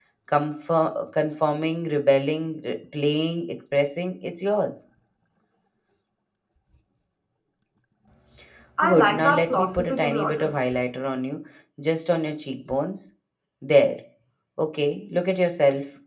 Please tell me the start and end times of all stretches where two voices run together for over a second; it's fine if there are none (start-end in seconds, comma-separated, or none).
8.8-10.5